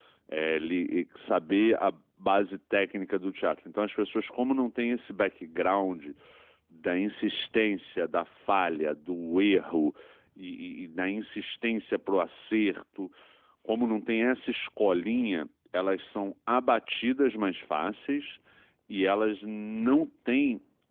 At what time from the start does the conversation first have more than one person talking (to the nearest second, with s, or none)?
none